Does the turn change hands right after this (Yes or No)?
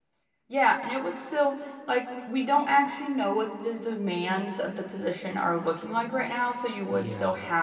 No